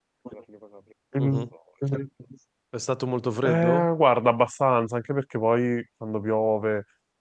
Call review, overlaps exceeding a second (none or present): none